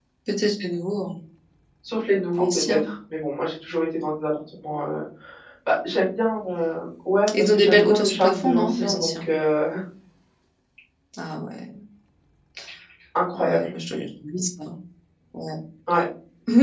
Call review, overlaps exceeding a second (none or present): present